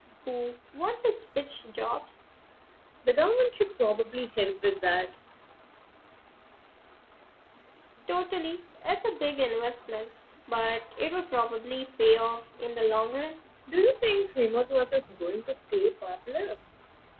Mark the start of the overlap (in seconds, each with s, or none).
none